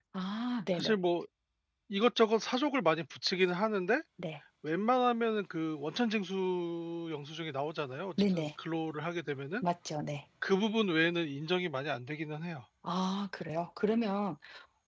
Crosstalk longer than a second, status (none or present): none